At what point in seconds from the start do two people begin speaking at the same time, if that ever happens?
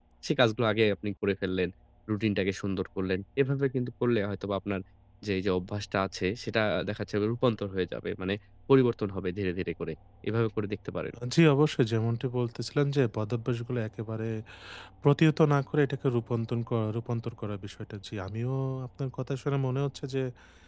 none

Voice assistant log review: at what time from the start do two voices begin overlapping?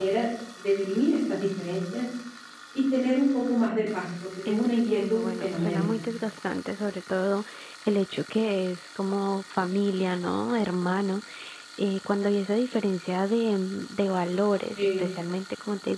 4.5 s

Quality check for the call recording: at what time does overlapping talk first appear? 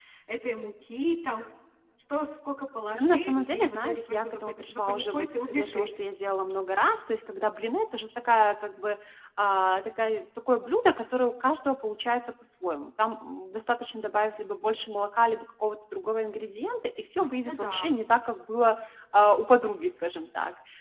3.0 s

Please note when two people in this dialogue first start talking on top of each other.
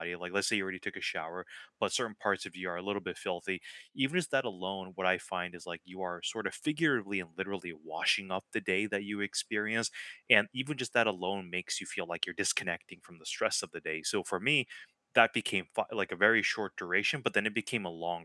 none

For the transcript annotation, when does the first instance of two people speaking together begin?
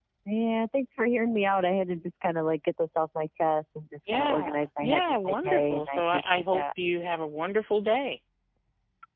4.1 s

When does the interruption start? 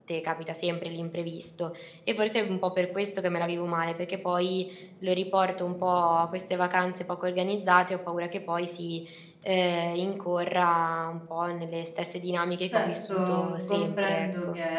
12.7 s

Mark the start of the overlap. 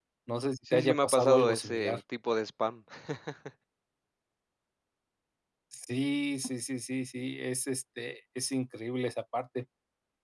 0.7 s

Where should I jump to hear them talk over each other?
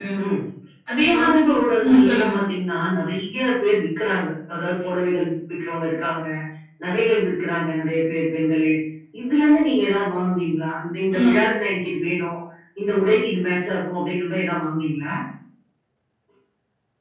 1.1 s

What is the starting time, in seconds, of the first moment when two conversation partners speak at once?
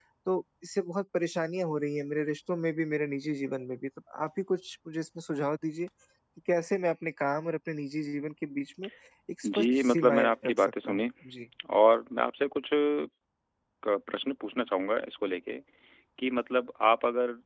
9.4 s

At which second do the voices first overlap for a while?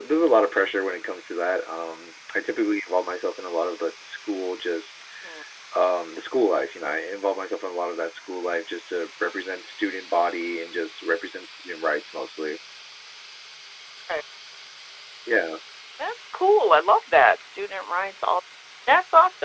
none

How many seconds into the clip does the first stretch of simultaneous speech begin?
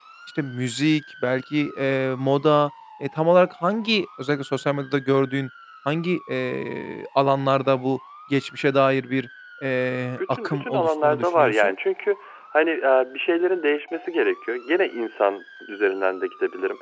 10.2 s

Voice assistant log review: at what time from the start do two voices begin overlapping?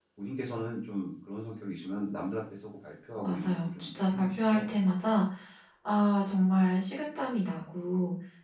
3.2 s

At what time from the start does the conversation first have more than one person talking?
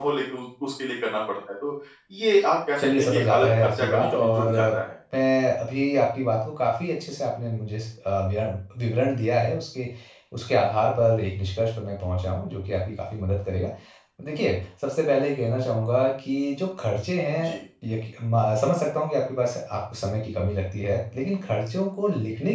2.8 s

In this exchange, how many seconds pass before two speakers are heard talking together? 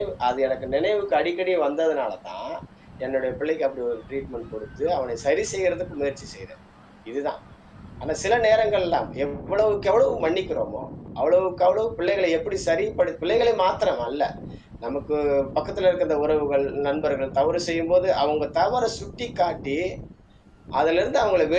none

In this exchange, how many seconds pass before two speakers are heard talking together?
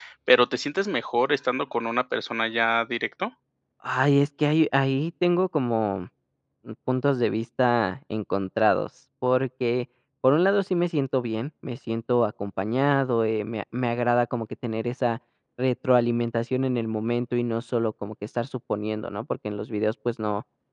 none

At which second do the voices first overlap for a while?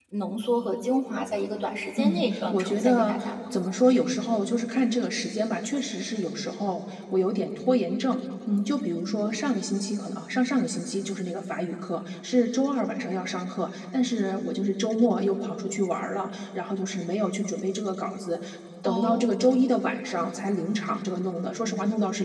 2.0 s

